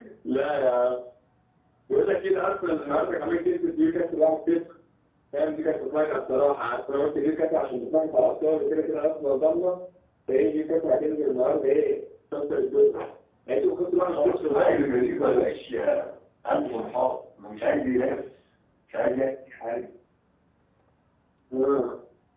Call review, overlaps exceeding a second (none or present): present